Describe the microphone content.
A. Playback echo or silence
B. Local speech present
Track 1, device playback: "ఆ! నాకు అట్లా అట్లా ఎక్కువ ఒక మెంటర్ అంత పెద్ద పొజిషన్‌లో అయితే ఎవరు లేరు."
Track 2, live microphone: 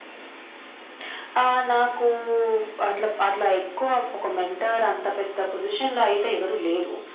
A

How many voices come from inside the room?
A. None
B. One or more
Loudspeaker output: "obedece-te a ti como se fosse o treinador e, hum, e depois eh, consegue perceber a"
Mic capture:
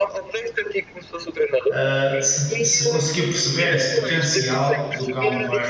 B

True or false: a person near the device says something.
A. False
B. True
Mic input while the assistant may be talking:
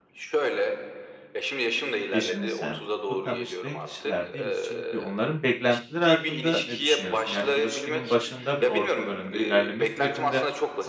B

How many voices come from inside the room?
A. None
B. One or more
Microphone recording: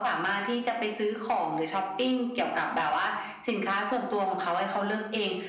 A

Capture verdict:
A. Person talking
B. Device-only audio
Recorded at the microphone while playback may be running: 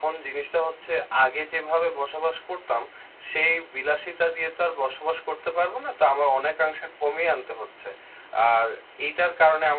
B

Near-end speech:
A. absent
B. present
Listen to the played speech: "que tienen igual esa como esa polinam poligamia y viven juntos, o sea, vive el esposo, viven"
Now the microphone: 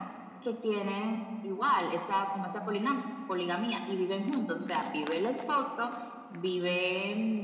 A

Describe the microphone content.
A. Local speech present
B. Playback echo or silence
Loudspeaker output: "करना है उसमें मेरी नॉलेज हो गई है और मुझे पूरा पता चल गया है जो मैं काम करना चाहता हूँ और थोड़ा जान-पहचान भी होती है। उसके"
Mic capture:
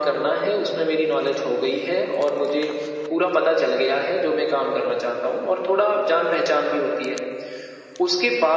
B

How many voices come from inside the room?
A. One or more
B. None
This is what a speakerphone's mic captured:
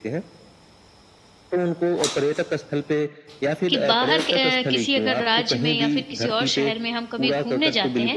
A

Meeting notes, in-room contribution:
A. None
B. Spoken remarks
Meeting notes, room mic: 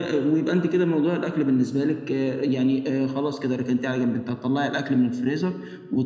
A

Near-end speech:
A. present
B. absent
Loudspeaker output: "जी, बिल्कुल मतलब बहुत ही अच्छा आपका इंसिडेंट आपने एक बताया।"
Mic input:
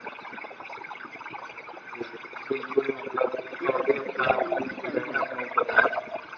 A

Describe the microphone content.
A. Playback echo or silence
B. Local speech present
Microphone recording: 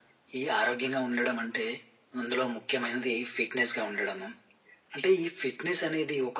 A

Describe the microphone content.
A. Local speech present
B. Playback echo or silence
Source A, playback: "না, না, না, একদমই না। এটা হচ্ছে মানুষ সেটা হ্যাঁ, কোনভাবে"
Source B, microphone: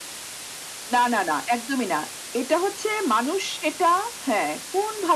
B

